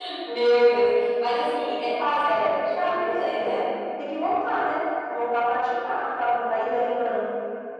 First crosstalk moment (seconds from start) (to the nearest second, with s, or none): 2 s